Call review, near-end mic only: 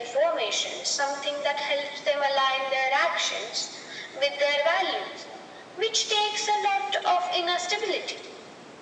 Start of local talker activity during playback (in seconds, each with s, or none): none